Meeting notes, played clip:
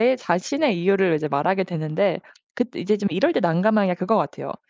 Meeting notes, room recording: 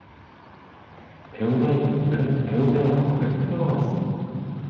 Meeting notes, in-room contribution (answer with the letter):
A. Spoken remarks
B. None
A